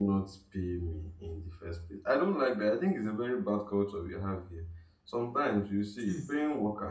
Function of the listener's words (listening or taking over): listening